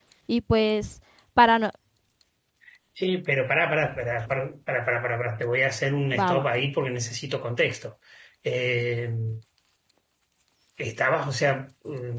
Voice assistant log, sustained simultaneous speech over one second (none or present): none